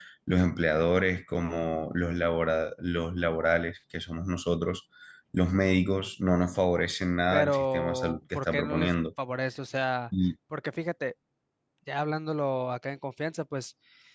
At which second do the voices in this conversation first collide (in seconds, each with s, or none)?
7.3 s